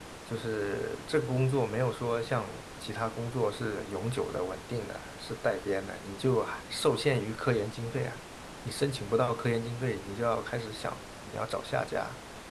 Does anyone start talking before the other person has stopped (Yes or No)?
No